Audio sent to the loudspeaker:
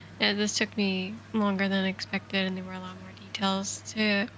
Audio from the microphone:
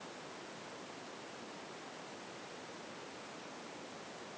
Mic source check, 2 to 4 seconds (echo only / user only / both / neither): neither